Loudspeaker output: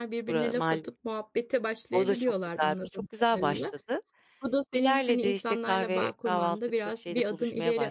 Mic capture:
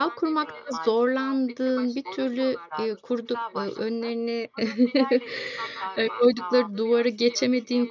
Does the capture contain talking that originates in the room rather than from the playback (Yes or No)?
Yes